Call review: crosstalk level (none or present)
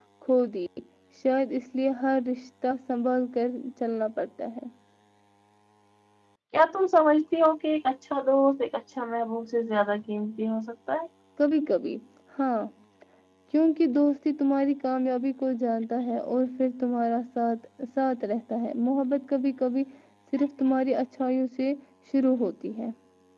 none